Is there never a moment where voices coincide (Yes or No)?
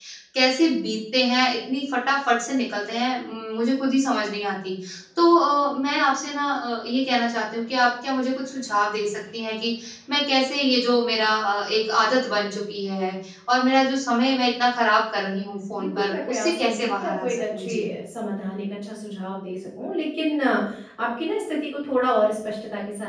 No